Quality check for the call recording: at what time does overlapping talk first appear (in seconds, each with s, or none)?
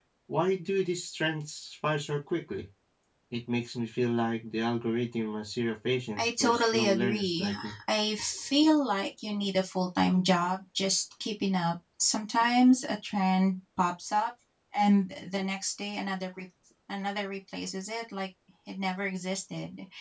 6.2 s